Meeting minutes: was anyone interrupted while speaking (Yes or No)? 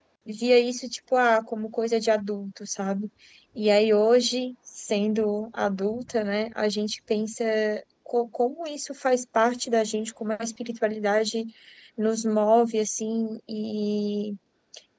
No